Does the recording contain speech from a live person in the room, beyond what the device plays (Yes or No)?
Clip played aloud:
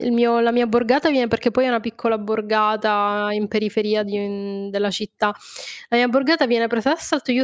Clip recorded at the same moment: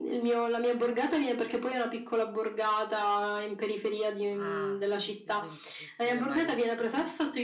Yes